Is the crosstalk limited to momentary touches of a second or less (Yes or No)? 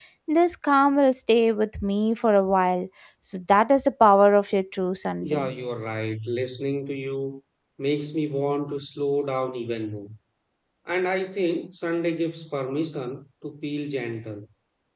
Yes